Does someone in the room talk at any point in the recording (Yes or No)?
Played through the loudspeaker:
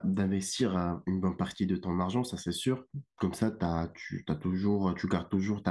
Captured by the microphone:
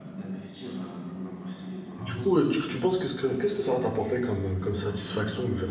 Yes